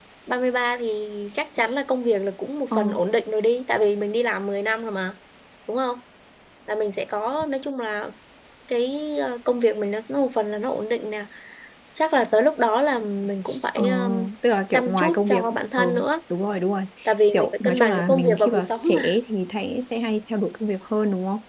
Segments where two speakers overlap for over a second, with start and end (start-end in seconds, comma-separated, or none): 14.7-15.9, 17.3-19.2